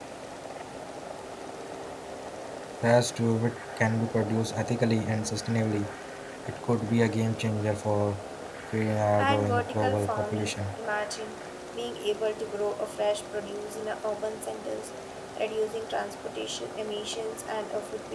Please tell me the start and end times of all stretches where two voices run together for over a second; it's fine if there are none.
9.2-10.5

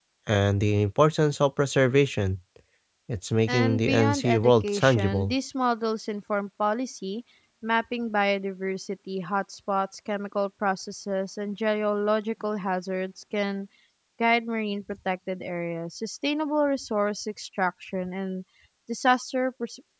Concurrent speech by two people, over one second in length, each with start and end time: 3.5-5.3

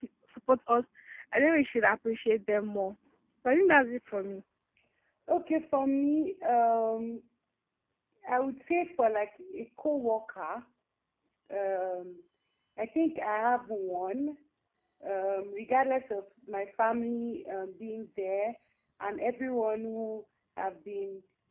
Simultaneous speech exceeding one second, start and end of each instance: none

